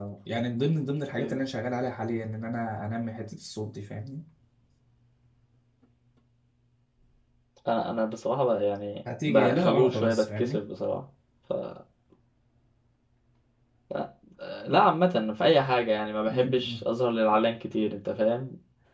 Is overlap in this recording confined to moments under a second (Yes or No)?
No